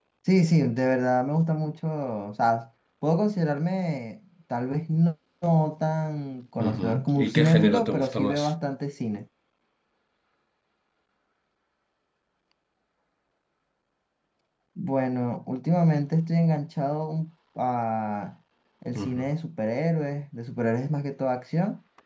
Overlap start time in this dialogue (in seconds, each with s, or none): 6.6 s